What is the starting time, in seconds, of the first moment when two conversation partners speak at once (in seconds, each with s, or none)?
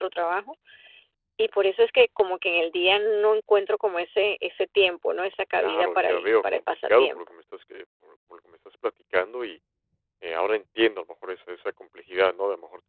5.6 s